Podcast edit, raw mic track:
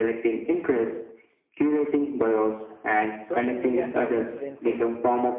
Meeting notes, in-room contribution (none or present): present